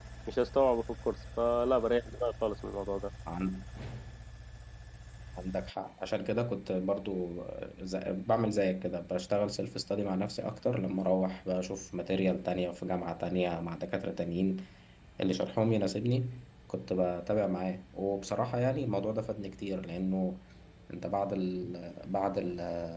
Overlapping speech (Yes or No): No